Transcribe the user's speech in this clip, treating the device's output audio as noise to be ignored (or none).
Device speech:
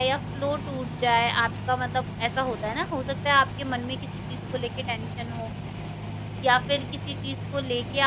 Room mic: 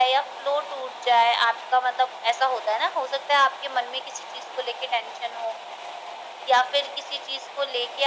none